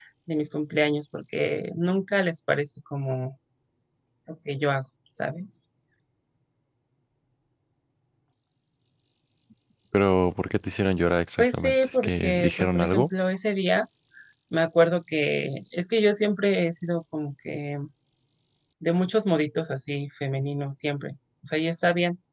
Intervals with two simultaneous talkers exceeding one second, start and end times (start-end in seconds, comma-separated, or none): 11.4-13.1